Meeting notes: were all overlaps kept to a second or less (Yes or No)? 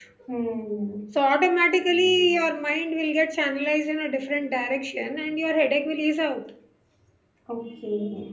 Yes